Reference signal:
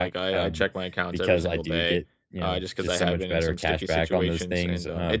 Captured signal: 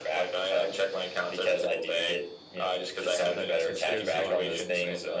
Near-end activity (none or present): present